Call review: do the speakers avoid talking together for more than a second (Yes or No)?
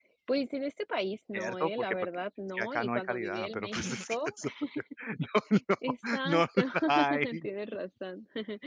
No